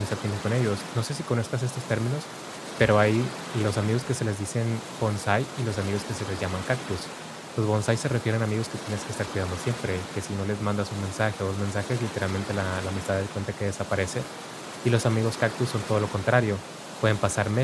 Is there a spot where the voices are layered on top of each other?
No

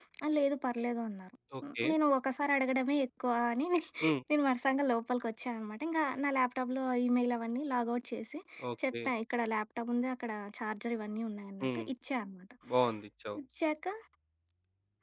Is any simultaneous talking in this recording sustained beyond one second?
No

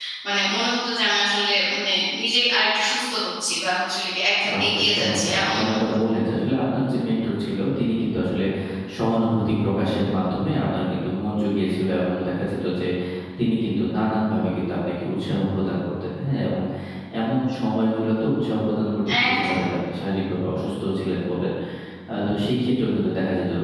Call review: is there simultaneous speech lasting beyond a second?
Yes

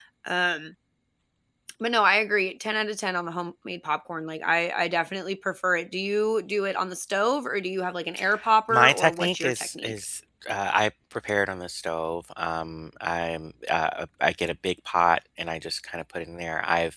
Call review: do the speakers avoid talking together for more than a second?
No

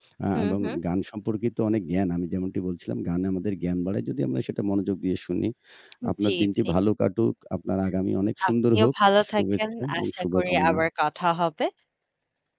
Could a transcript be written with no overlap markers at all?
No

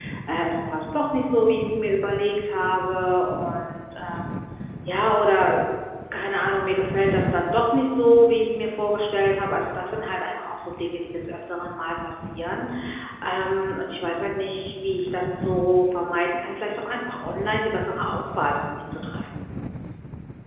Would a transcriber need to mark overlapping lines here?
No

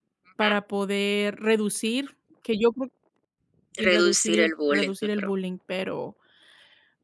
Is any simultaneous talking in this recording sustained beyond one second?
Yes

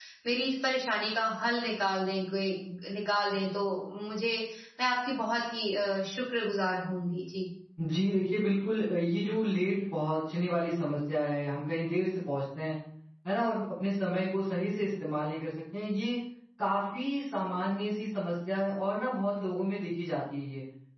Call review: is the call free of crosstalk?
Yes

